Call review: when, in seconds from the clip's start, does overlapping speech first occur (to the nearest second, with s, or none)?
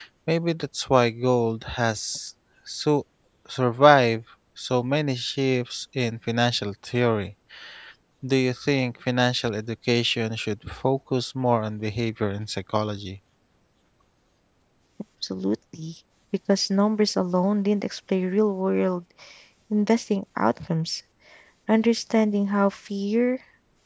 none